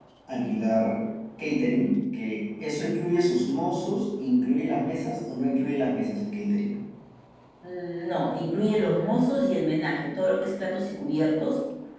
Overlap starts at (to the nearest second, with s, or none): none